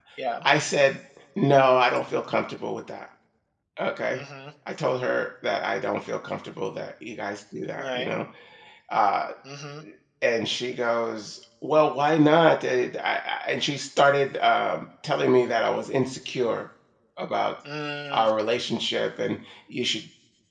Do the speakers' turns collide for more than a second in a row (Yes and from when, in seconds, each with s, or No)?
No